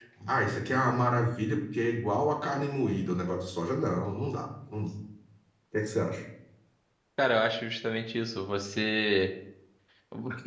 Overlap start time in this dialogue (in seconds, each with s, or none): none